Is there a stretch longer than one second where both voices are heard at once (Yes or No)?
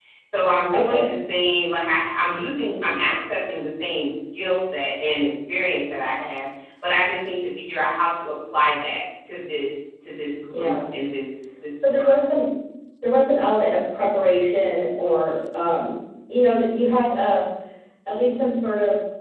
No